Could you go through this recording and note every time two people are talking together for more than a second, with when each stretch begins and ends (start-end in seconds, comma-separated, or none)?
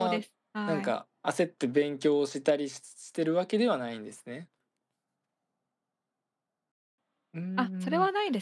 none